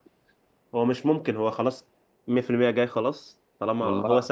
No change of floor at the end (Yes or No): Yes